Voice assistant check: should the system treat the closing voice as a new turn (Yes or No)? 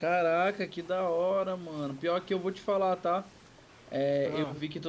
No